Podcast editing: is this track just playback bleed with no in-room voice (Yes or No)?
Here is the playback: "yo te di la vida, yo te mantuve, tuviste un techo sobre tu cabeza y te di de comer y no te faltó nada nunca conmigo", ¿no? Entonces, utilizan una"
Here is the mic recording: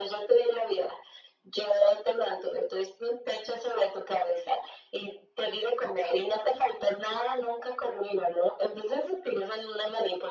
Yes